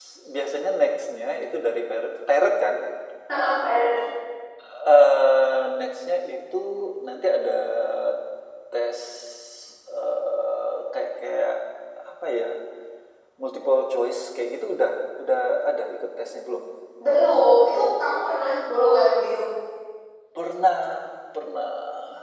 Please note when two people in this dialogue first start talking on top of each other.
none

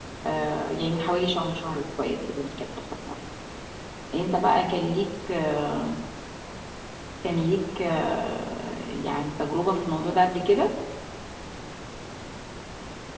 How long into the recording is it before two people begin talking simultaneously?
none

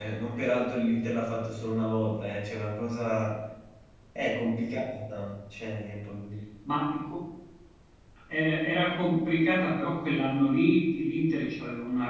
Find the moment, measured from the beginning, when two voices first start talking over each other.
none

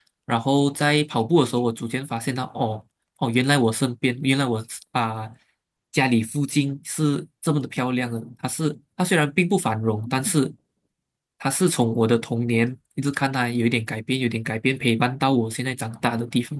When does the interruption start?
none

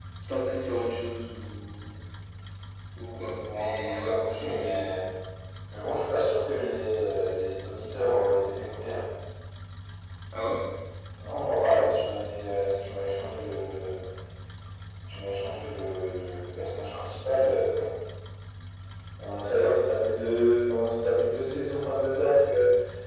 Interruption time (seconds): 4 s

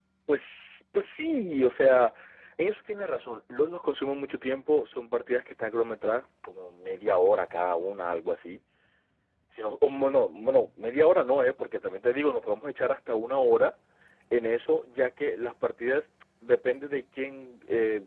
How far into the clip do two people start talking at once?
none

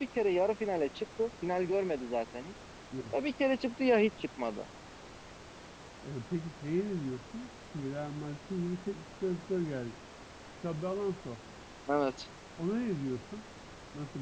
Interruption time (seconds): none

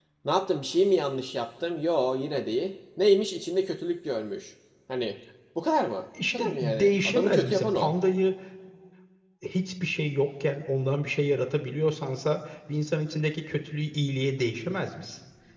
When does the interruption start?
6 s

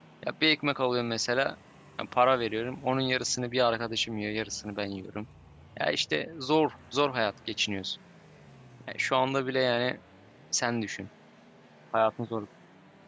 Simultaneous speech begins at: none

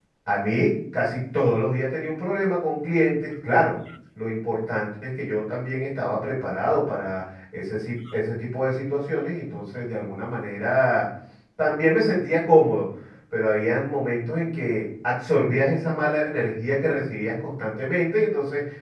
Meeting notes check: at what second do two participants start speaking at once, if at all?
none

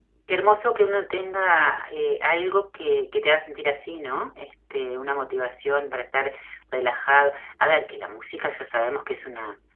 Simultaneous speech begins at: none

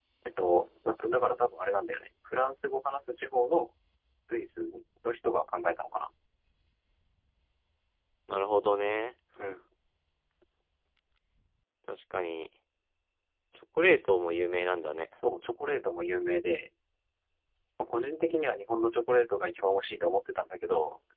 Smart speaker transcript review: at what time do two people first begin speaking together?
none

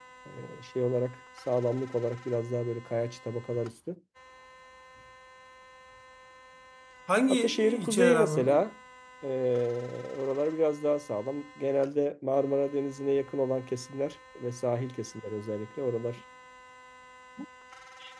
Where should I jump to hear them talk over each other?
7 s

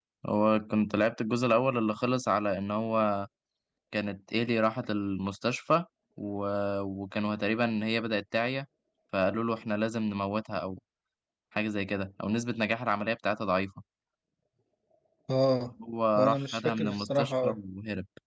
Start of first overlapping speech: 16 s

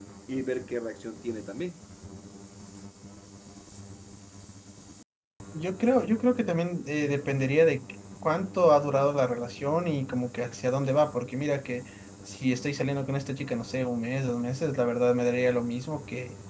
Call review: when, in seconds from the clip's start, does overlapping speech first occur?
none

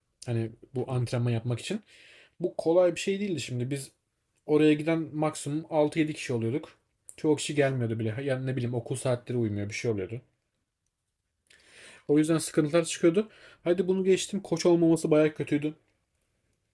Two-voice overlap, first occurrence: none

